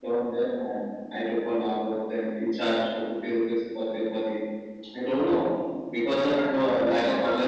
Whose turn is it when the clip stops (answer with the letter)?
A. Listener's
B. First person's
A